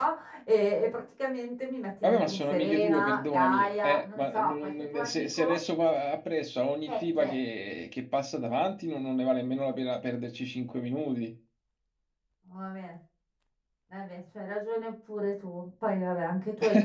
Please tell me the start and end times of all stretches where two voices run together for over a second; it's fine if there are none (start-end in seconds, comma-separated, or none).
2.0-5.6